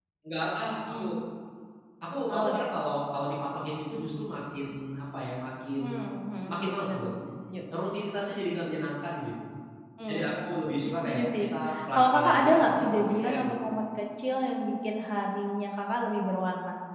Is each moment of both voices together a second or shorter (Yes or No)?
No